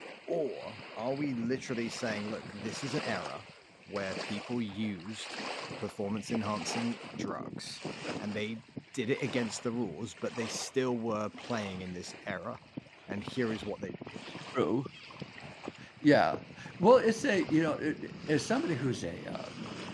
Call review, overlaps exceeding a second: none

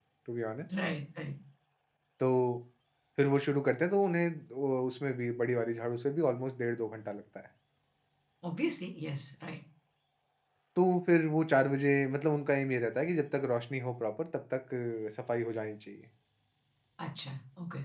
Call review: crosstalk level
none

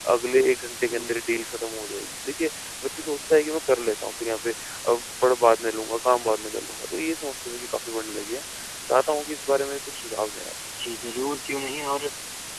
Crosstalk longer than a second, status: none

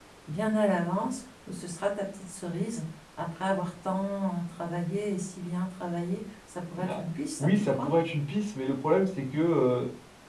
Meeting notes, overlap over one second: none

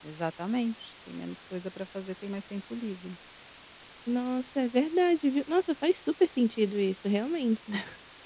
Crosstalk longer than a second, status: none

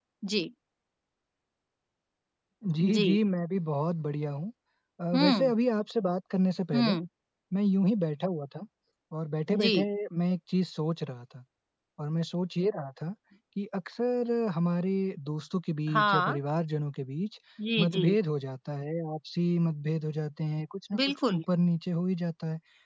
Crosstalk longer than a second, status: none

